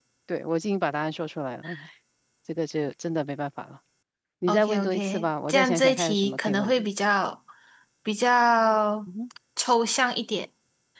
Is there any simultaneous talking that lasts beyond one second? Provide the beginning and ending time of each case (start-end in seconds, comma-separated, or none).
4.5-6.8